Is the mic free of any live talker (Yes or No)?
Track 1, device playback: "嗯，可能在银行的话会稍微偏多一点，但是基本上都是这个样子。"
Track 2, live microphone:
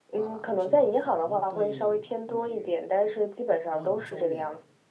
No